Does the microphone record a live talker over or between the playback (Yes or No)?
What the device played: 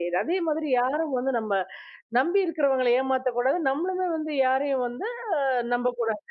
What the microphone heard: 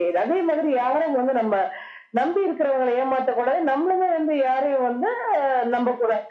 No